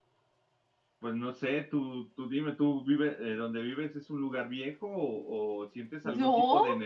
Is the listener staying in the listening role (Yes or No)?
Yes